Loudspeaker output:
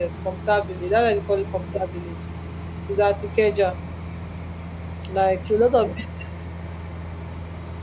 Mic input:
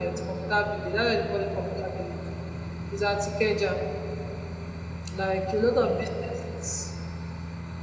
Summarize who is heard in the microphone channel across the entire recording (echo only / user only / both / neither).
echo only